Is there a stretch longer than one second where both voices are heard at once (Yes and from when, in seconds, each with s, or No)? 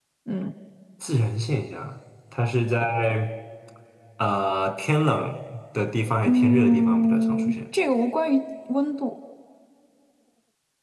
Yes, from 6.2 s